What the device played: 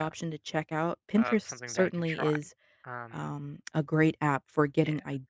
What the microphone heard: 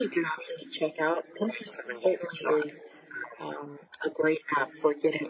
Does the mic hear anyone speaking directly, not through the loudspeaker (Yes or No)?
No